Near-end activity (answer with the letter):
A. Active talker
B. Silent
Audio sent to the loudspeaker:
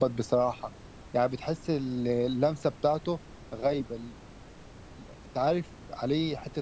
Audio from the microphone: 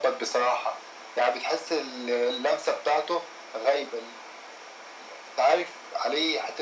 B